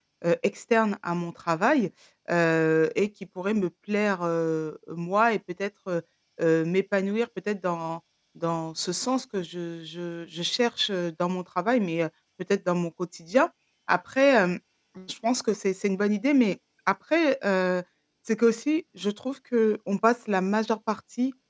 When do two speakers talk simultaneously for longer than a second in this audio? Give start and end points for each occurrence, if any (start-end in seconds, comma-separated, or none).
none